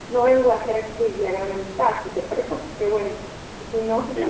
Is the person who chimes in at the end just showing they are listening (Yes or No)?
Yes